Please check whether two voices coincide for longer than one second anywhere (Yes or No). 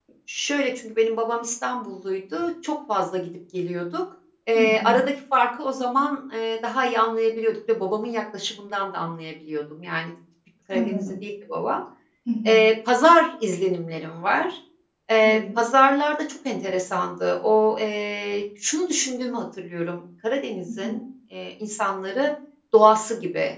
No